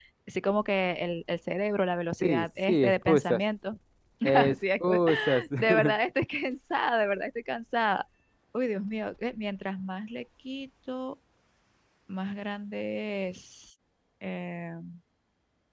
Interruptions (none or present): present